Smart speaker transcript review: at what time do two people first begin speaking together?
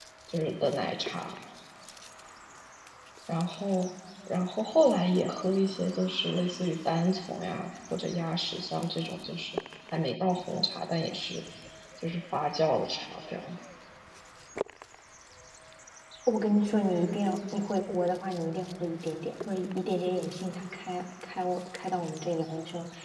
none

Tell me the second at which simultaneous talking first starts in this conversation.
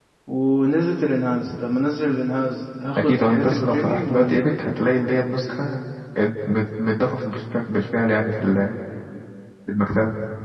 3 s

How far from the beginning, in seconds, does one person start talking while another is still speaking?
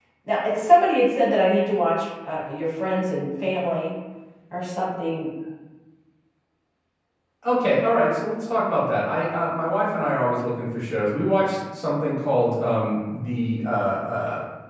none

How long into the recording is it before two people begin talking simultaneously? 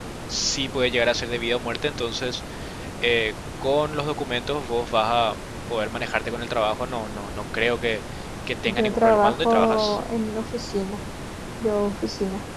9 s

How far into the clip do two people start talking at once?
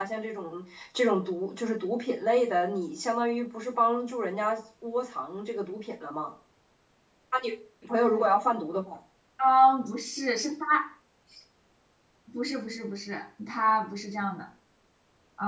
none

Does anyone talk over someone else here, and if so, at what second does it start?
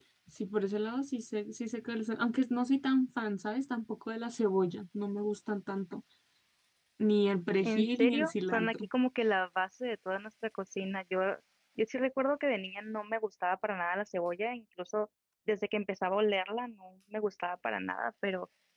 8 s

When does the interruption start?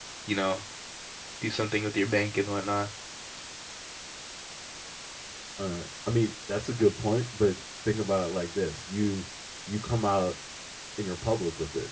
none

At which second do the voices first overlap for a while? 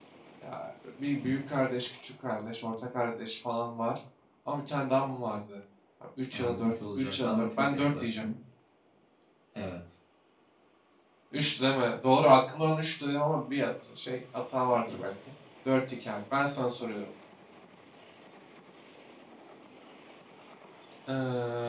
6 s

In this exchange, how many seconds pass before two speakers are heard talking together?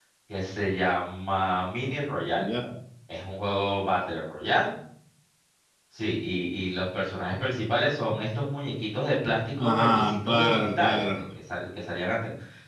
10 s

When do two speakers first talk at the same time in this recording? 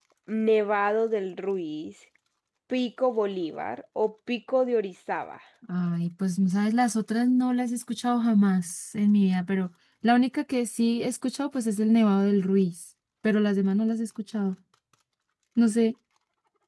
none

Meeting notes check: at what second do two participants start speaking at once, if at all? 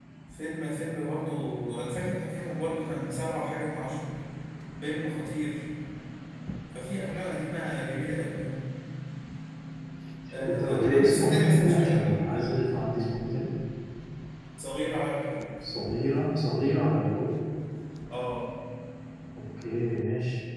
10 s

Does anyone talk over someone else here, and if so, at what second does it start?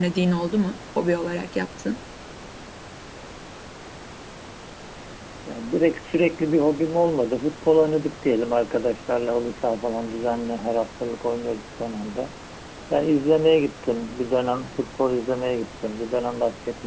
none

